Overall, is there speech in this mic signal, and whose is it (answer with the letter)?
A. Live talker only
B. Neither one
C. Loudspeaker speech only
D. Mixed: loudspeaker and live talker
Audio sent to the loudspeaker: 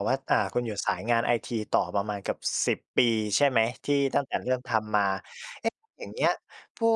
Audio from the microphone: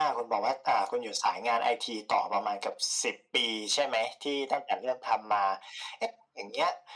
C